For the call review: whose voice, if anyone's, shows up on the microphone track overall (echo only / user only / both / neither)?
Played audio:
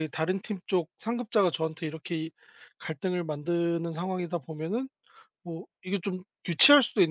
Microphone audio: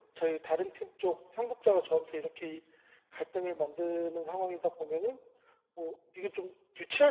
echo only